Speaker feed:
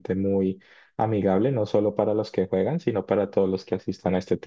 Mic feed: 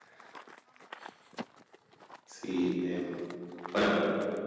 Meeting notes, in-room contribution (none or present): present